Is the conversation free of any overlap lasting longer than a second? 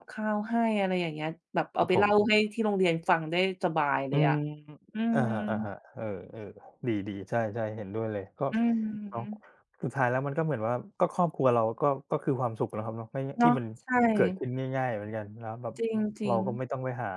Yes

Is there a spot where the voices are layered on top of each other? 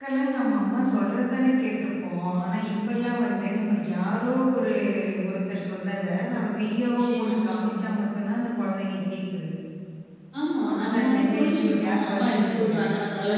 Yes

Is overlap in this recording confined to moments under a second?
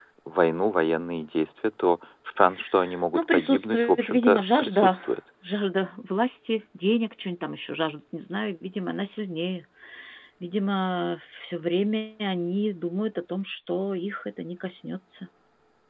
No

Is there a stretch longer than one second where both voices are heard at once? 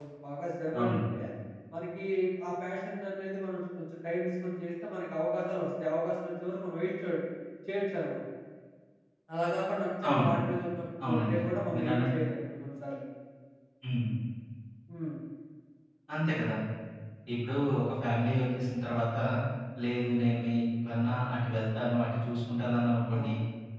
No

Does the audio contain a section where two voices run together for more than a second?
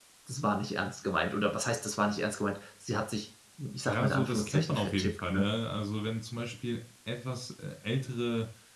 Yes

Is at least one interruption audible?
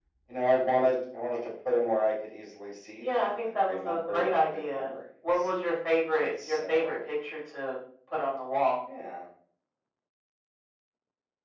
Yes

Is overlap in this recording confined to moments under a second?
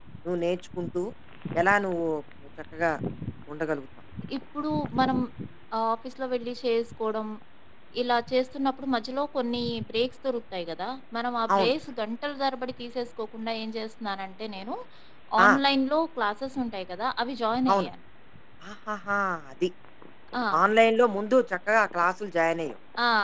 Yes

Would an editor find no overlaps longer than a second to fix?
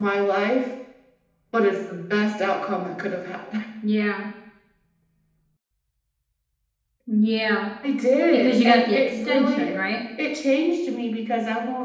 No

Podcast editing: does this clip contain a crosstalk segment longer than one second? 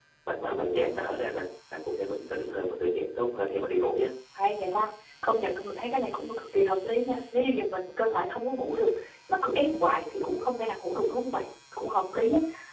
No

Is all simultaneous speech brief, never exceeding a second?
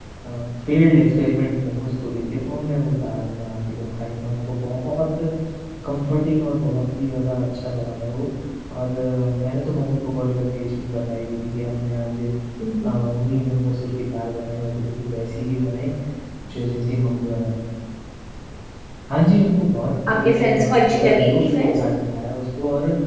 No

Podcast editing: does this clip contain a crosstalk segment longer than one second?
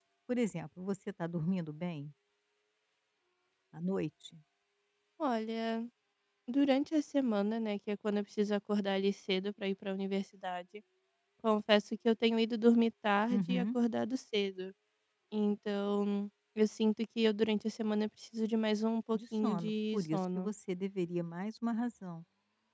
Yes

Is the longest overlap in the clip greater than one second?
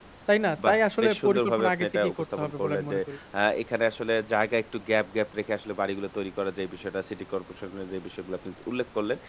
Yes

